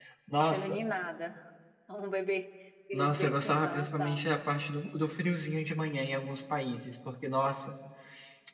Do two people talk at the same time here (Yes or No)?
Yes